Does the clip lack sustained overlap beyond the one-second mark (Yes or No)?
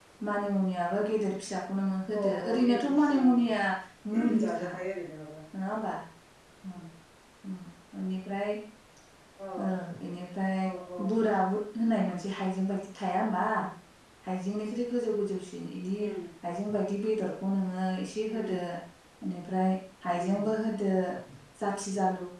No